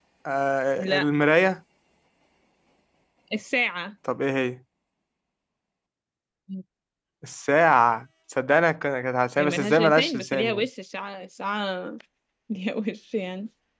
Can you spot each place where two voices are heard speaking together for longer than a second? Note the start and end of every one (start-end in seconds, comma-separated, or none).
9.4-10.6